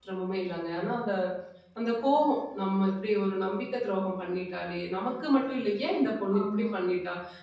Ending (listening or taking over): listening